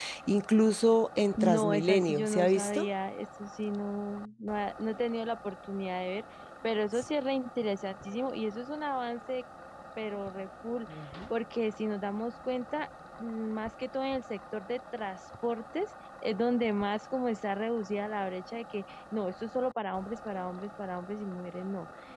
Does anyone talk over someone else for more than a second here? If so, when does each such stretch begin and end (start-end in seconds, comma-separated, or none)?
1.4-2.8